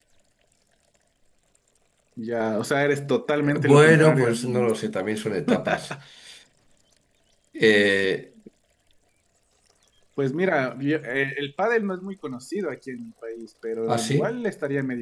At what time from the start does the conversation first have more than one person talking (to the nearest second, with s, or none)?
4 s